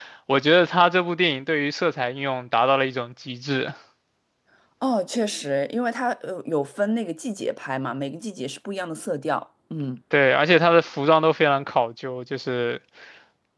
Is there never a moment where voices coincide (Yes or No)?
Yes